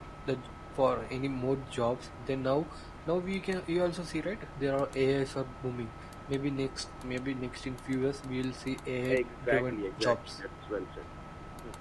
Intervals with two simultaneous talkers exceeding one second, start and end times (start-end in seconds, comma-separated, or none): 9.1-10.4